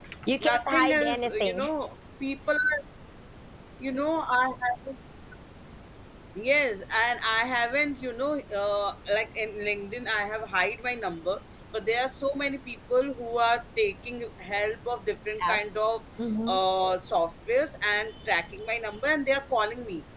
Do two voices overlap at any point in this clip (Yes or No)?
Yes